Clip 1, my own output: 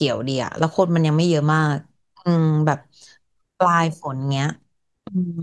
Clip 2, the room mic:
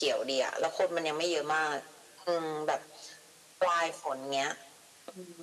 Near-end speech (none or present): none